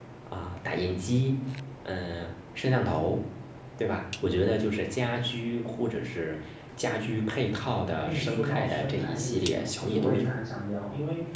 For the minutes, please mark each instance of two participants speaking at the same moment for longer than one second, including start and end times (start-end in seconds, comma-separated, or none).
8.0-10.5